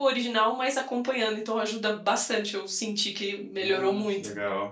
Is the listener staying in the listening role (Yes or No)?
No